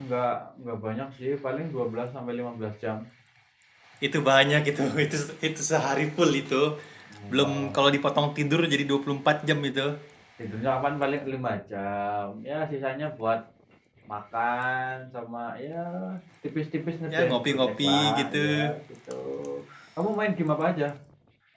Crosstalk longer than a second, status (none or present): present